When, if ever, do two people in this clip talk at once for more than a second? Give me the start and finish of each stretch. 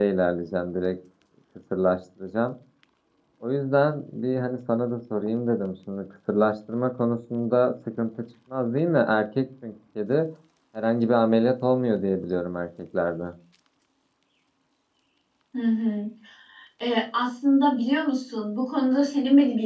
none

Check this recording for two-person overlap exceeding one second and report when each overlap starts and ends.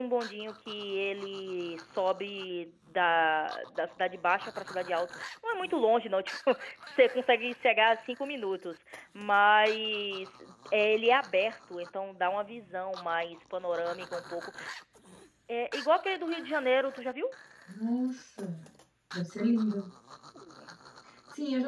none

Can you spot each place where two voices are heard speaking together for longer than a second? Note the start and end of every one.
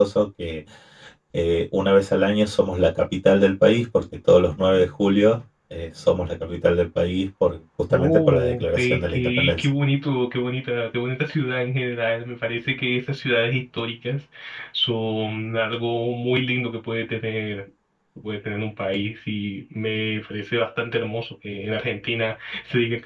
7.9-9.7

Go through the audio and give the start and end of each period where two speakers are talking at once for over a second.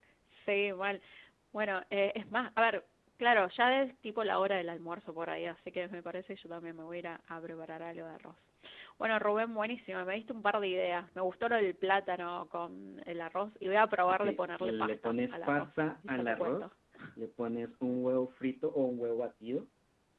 14.1-16.7

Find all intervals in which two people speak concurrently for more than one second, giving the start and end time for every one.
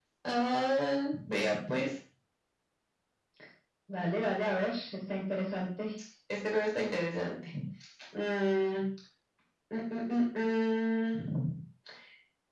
none

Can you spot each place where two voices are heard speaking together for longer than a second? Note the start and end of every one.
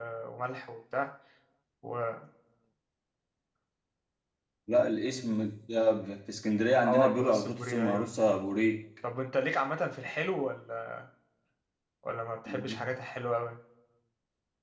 6.8-8.1

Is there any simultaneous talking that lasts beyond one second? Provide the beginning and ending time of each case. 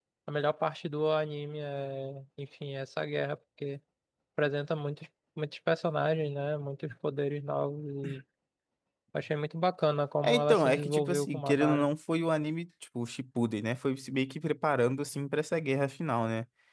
10.2-11.8

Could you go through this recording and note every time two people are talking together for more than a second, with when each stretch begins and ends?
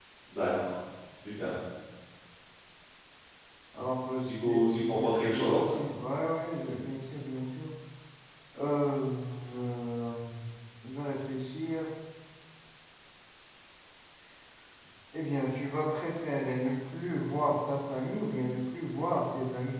4.2-5.6

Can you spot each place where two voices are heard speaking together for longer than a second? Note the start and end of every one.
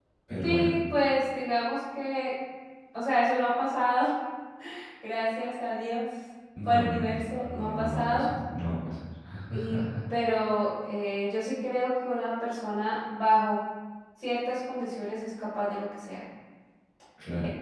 6.7-8.3

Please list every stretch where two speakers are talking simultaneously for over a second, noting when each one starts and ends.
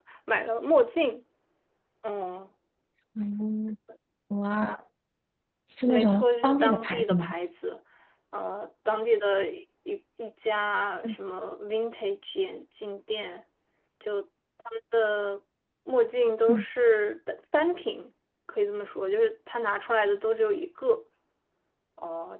5.9-7.3

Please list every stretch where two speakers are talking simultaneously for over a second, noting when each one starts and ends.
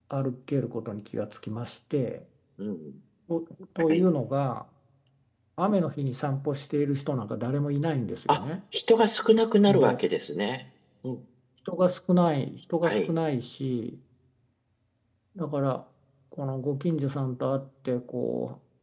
none

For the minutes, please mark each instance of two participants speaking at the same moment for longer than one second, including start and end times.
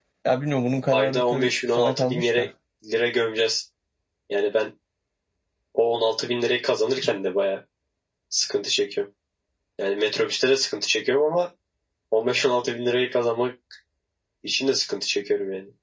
0.9-2.4

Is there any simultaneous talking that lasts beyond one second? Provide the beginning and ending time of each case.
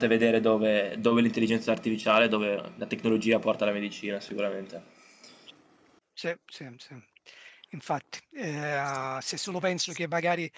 none

